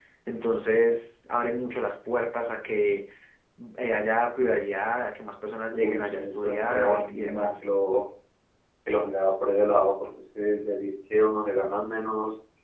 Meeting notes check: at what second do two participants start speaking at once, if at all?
5.7 s

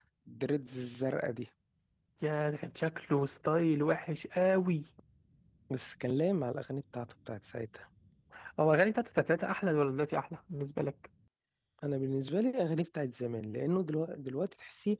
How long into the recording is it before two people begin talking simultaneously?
none

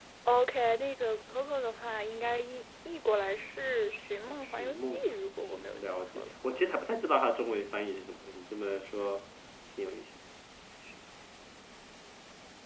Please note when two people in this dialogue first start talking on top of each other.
4.3 s

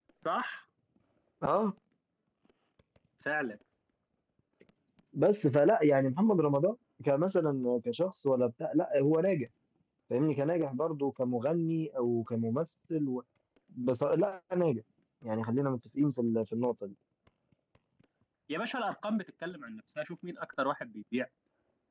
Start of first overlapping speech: none

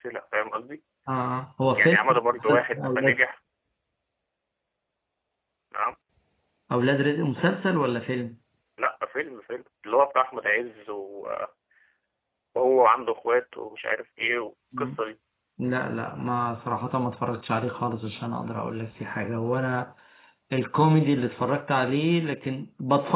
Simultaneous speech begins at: 1.8 s

